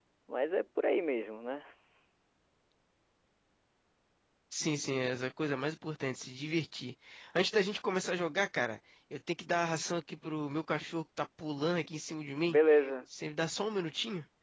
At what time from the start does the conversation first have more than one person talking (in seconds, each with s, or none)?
none